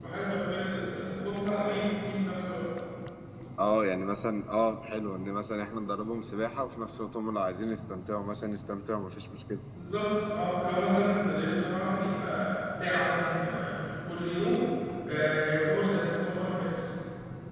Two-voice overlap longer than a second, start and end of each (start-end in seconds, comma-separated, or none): none